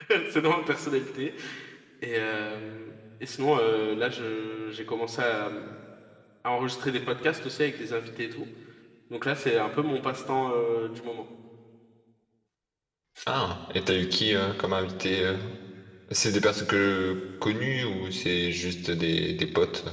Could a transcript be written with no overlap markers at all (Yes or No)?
Yes